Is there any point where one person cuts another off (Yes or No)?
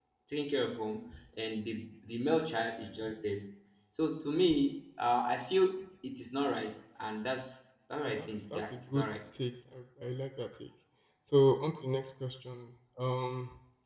Yes